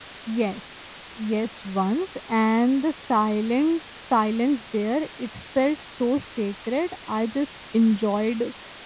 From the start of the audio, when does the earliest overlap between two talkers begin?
none

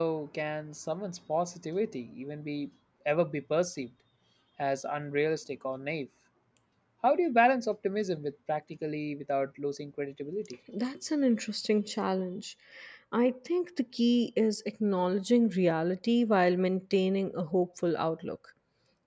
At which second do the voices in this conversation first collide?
none

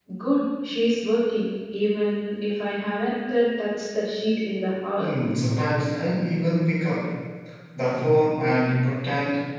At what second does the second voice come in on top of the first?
none

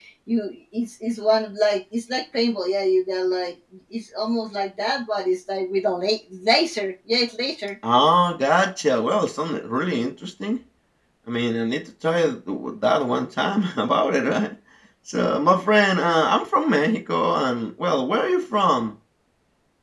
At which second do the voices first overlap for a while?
none

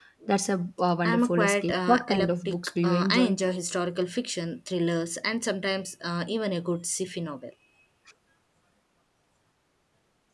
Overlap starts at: 1.0 s

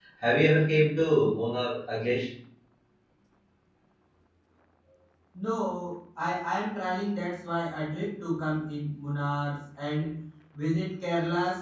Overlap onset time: none

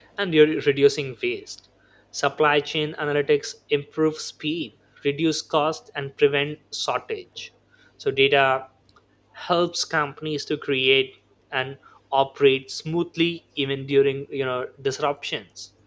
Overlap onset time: none

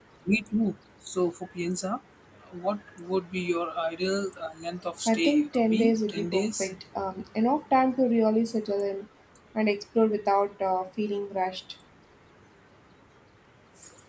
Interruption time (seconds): 5.1 s

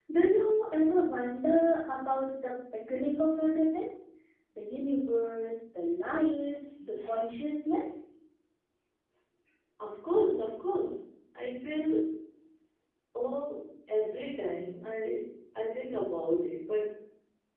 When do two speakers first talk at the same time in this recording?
none

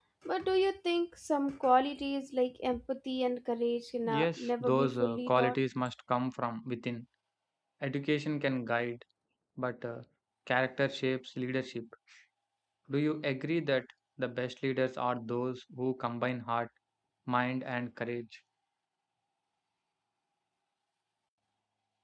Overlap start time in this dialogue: 4.0 s

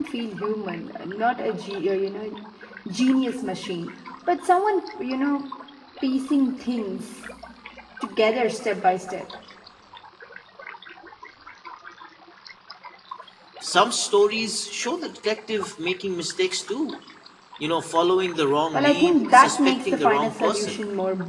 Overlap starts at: 18.7 s

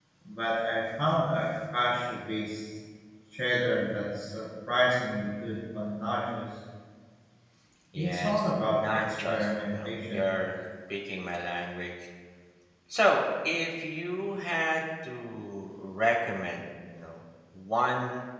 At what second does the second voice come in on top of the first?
8.0 s

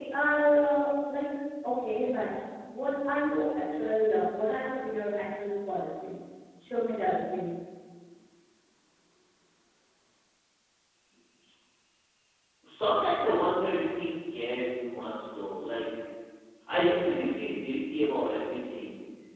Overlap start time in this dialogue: none

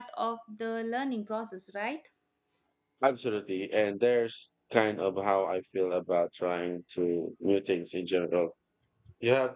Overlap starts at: none

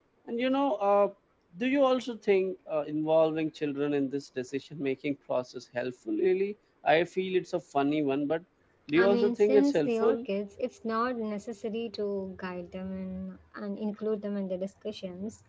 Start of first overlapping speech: 8.9 s

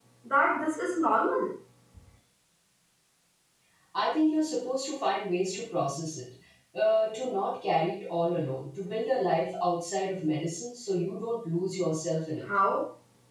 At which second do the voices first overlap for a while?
none

